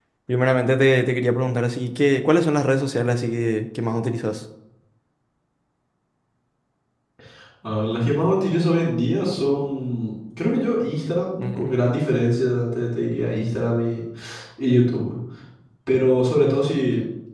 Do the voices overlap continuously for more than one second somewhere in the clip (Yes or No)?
No